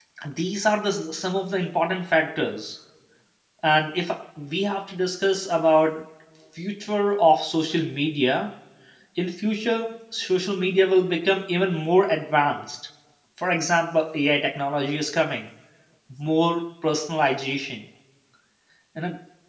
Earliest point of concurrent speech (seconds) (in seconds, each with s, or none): none